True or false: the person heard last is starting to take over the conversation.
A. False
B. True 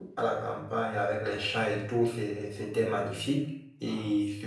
A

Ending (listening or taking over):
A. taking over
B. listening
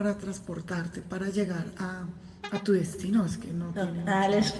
A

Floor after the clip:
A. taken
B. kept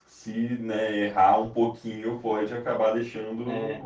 A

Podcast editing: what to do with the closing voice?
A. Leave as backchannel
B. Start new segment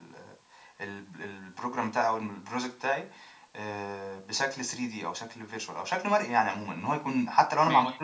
A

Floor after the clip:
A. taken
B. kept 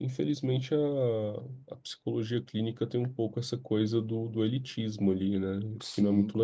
A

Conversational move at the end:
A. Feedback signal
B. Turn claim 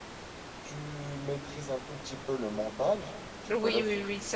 B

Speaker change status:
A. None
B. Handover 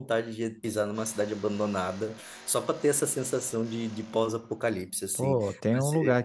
B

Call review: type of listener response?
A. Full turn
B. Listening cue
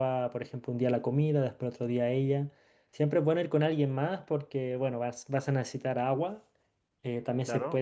B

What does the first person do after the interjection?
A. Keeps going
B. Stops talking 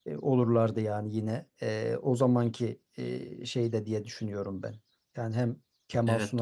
A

